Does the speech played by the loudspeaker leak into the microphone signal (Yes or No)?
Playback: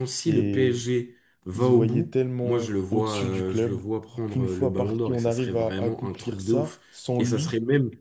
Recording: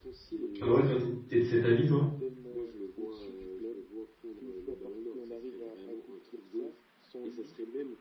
Yes